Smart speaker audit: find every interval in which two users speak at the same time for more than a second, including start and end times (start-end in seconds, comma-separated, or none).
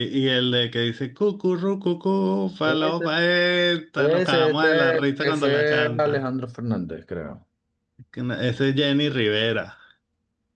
4.0-6.2